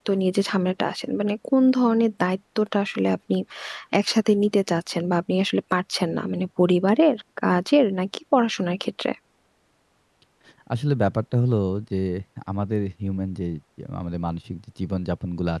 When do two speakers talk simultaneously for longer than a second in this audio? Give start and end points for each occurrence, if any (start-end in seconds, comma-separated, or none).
none